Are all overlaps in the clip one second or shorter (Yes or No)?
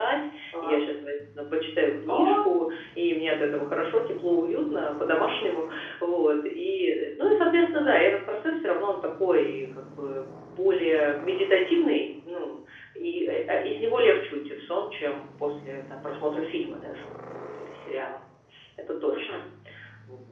Yes